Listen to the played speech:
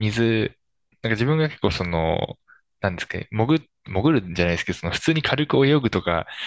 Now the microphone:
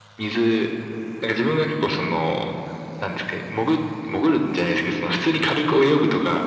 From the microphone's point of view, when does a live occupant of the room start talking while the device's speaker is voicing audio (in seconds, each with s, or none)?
none